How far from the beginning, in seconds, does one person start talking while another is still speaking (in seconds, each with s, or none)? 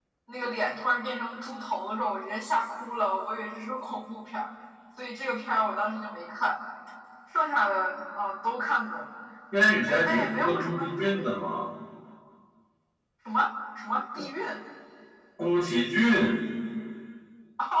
9.9 s